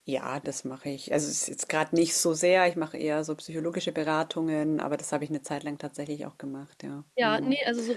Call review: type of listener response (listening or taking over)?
taking over